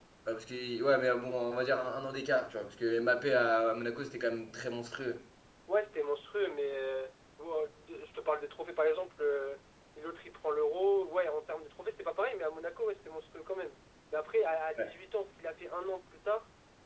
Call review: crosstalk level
none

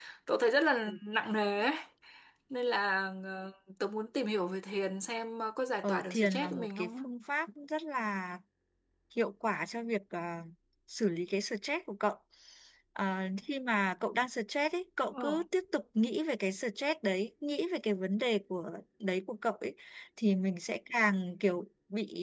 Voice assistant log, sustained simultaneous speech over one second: present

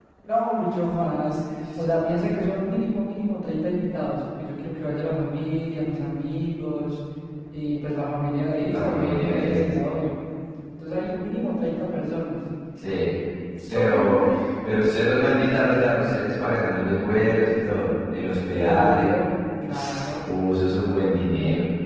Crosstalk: present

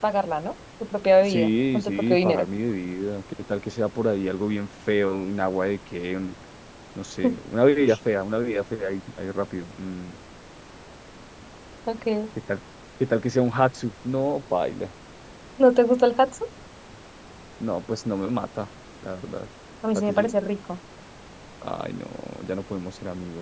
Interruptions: present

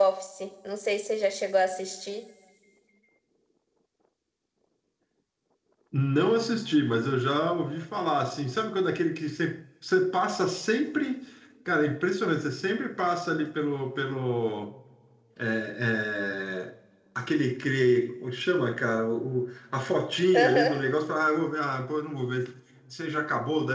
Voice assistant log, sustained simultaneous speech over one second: none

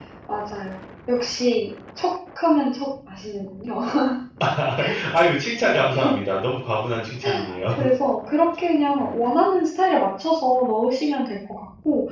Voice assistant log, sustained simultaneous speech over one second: none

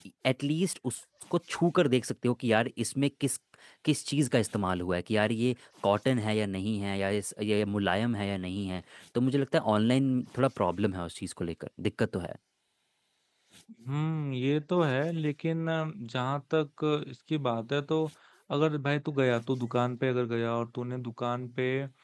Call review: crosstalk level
none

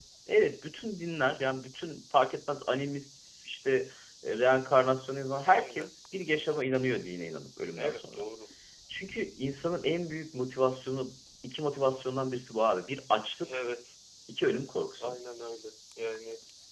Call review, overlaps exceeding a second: none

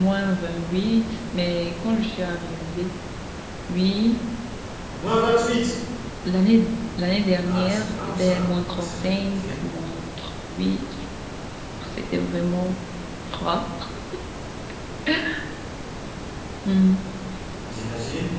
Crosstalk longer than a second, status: present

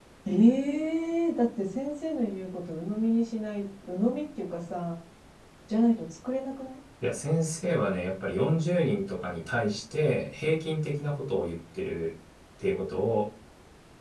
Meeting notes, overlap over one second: none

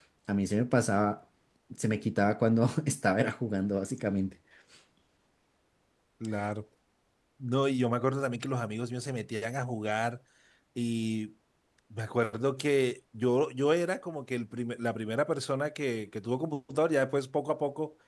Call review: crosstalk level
none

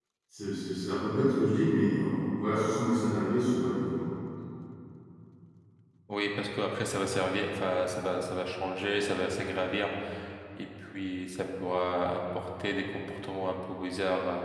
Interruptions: none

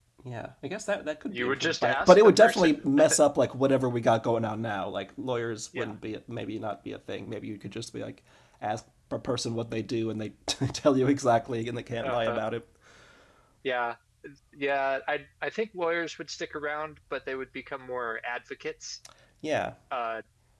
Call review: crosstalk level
present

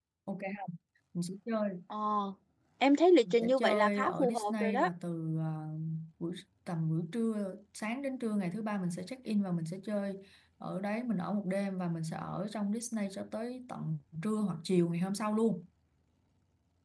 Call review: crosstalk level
present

